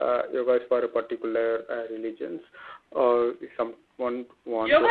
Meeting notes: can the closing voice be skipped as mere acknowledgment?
No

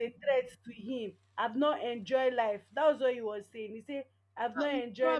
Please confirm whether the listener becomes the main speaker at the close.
Yes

